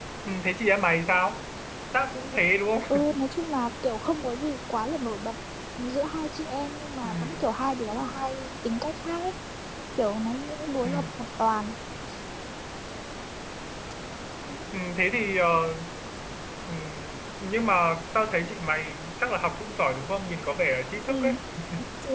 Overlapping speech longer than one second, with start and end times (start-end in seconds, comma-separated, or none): none